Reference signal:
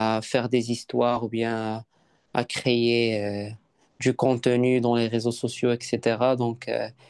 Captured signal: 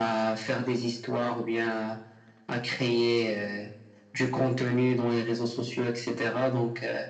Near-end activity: none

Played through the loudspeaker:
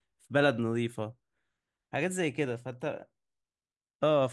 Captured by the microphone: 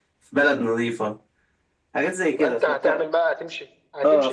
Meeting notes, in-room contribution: present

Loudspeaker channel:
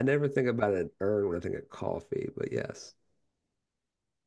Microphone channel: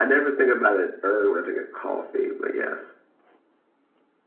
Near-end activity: none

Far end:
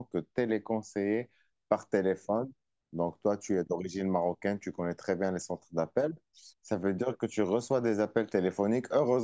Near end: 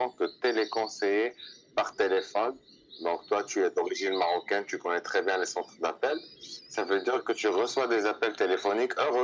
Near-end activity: none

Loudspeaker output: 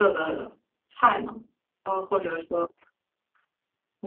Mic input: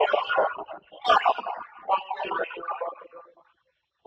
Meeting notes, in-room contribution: none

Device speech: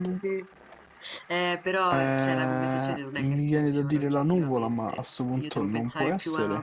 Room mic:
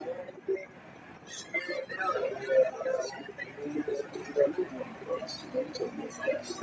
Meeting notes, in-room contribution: none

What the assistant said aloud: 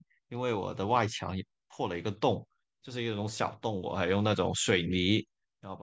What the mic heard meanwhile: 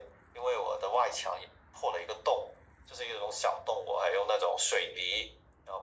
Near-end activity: none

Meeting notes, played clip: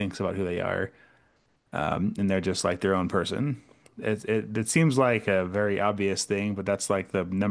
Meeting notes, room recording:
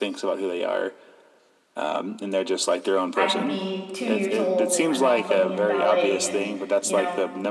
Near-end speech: present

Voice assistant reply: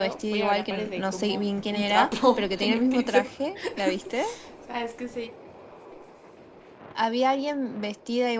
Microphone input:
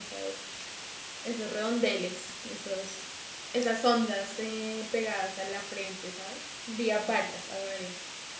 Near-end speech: present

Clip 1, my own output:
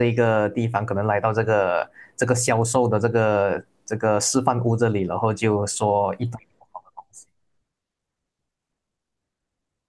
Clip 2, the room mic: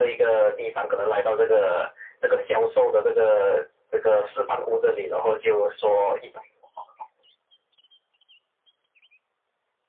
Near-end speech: none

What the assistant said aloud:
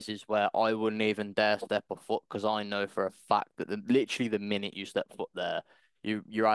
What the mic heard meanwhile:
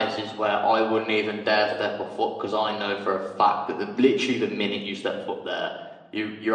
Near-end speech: none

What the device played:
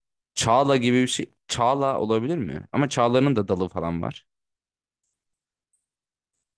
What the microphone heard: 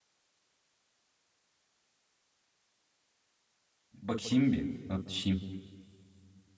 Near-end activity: present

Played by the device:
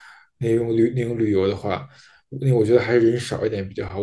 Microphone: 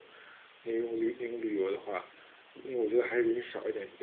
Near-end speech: none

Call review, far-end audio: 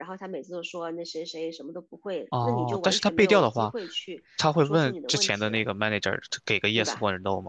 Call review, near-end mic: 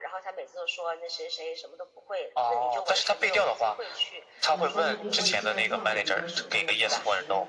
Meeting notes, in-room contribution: present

